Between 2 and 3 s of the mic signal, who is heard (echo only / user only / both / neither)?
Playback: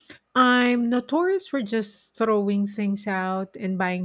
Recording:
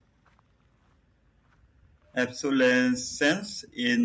user only